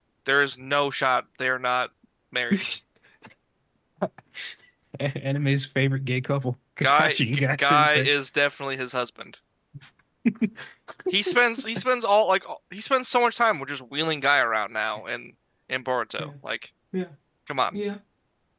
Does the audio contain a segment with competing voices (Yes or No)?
Yes